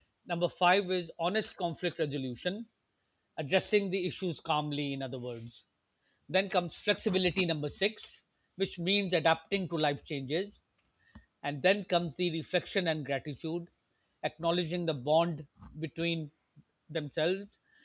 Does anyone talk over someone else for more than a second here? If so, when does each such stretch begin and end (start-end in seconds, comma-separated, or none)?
none